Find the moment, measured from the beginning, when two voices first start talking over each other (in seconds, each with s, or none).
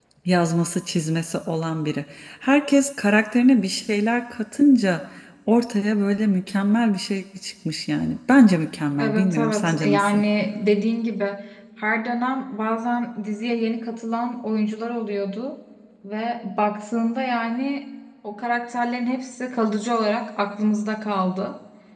9.0 s